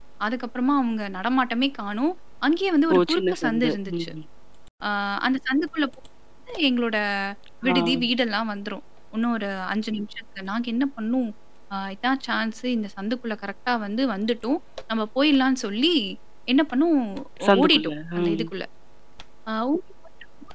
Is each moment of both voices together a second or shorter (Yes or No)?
No